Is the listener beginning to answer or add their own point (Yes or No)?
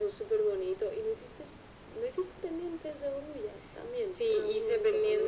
Yes